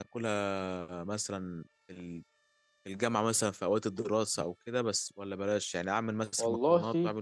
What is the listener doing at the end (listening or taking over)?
listening